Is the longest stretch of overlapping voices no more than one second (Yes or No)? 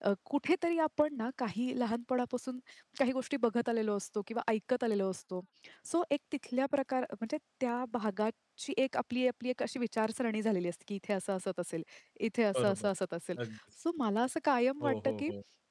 Yes